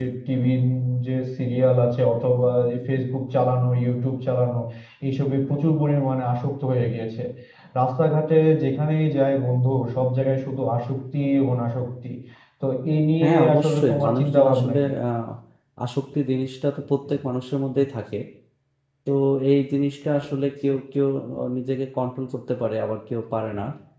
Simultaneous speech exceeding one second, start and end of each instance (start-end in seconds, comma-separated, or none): 13.2-14.9